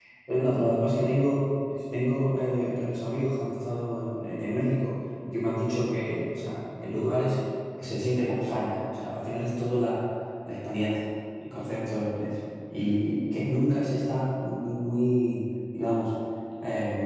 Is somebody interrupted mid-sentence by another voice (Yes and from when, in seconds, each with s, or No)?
No